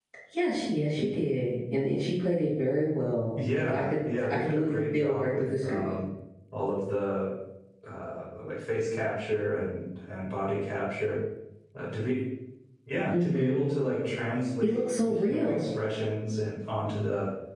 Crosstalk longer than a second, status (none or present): present